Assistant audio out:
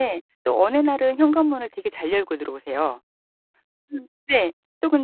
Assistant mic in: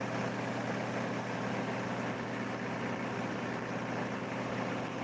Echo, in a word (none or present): none